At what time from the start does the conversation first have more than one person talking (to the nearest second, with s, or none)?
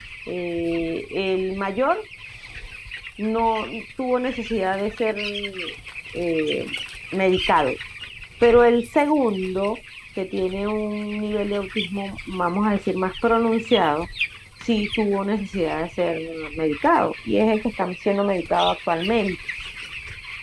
none